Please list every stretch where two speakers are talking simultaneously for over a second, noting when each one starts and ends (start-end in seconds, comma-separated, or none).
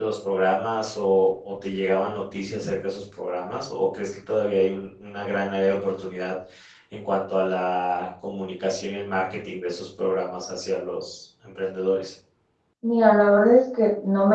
none